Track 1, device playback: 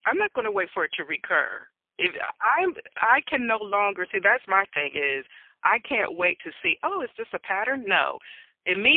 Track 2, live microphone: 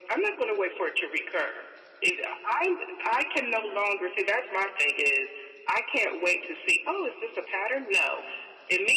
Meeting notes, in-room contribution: none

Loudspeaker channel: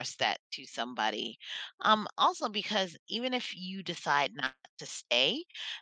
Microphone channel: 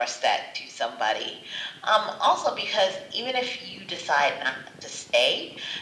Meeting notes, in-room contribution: none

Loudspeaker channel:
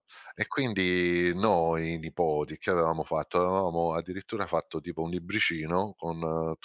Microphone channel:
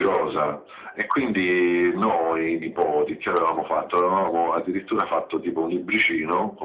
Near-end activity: present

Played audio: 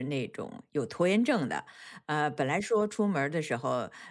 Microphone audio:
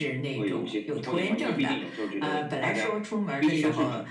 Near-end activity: present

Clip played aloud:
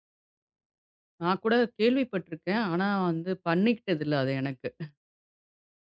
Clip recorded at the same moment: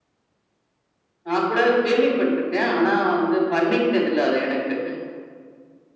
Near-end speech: none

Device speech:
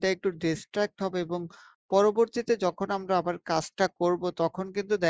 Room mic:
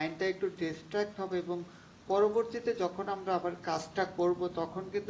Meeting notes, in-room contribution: none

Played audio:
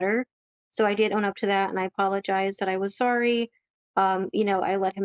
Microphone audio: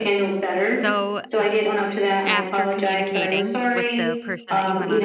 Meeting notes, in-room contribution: present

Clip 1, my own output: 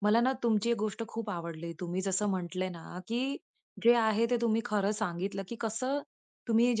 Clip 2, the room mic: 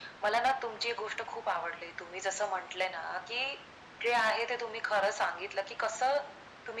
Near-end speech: none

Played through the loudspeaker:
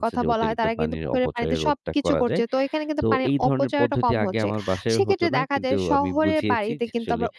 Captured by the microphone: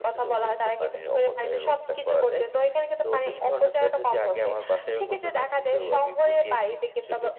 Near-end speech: none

